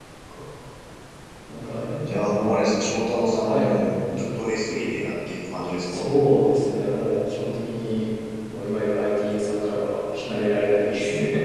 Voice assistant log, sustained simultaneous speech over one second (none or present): none